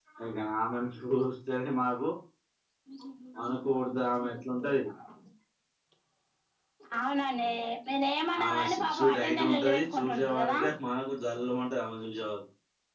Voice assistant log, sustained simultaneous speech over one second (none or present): present